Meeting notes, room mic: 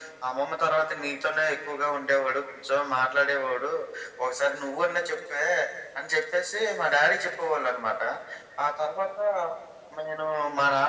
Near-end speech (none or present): none